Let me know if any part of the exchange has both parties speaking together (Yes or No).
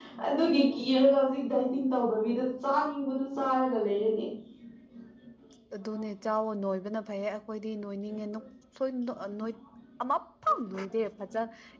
No